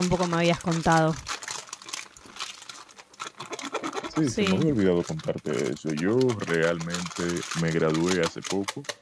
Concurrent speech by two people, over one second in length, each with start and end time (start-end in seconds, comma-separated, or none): none